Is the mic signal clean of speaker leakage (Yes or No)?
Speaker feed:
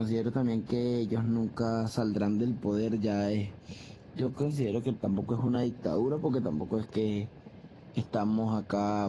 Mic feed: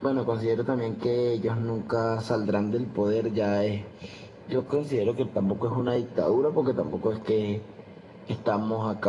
No